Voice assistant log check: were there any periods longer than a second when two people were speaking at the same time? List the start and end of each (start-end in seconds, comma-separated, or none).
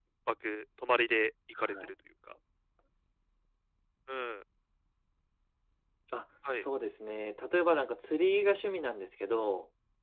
none